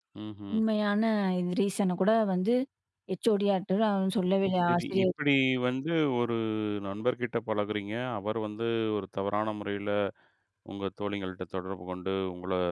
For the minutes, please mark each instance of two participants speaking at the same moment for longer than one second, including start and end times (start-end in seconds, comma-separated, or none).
none